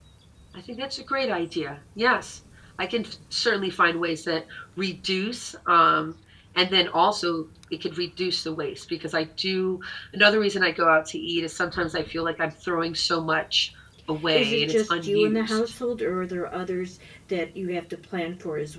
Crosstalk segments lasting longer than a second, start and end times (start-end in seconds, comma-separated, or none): 14.3-15.6